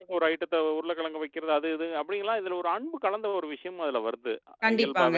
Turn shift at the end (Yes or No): Yes